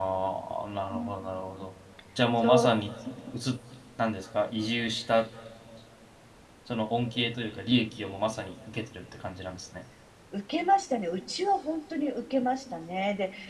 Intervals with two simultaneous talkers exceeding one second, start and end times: none

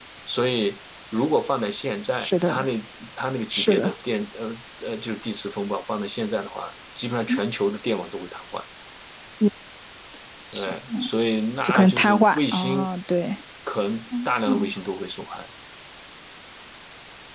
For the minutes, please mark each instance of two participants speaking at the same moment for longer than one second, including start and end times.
11.6-12.9

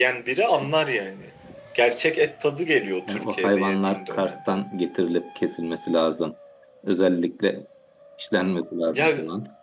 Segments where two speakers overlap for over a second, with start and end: 3.1-4.6

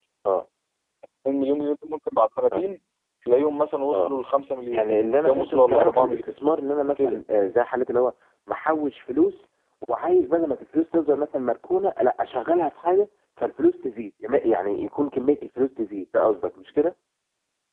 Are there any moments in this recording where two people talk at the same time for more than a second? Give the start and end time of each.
4.7-6.4

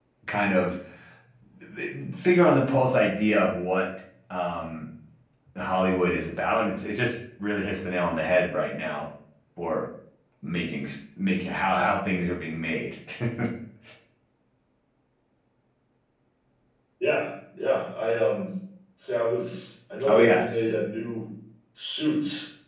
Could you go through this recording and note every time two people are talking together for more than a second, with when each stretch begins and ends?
none

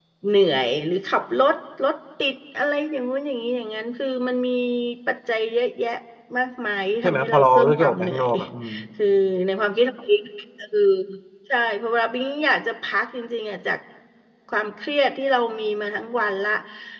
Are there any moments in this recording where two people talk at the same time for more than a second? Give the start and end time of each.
7.0-8.3

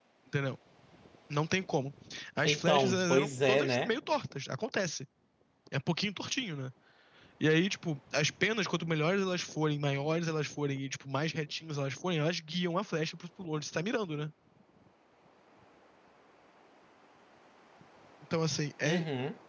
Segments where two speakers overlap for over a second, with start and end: 2.4-3.9

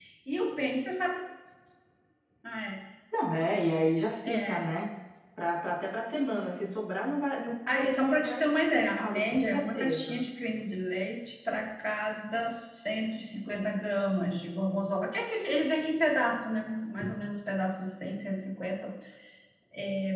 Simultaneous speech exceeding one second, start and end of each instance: 7.7-10.2

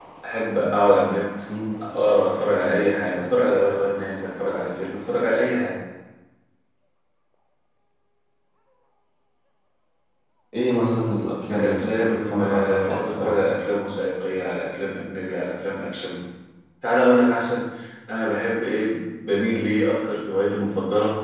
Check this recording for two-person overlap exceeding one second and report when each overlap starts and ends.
11.5-13.4

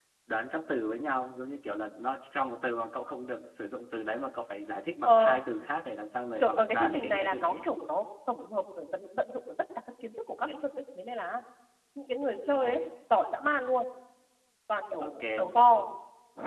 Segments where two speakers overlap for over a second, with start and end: 6.4-7.7

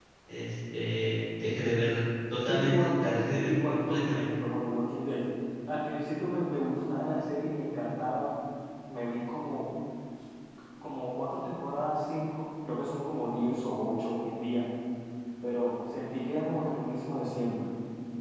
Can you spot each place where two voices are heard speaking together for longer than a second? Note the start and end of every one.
2.4-4.3

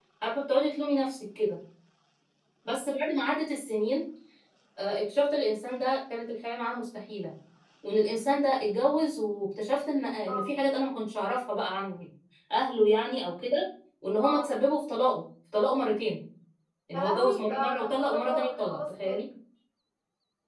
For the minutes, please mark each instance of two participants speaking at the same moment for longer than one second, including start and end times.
17.0-19.2

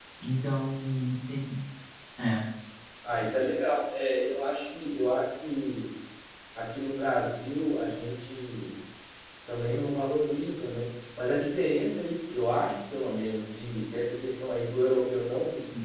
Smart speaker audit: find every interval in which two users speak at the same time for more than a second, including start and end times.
none

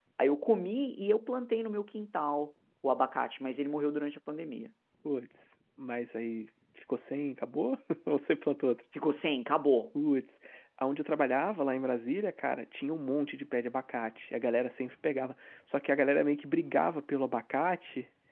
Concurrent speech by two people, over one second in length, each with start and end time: none

